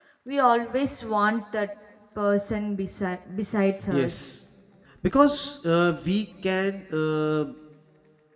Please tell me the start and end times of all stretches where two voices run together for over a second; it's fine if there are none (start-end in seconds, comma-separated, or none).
none